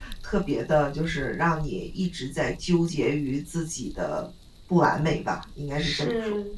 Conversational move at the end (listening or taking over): taking over